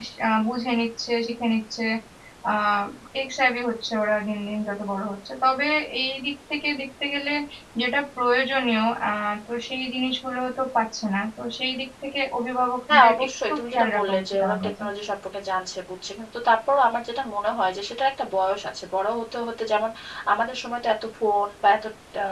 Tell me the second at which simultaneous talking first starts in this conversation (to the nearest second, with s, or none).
13 s